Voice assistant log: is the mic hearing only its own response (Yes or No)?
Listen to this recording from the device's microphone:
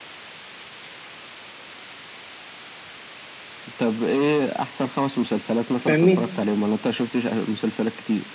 No